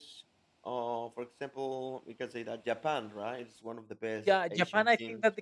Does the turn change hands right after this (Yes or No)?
Yes